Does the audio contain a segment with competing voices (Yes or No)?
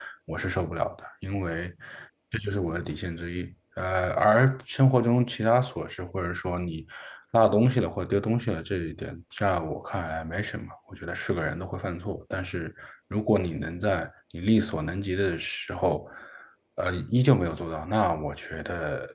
No